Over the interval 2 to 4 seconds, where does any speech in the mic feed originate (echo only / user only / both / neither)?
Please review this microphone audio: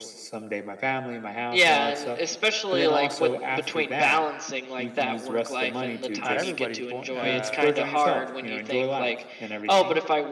echo only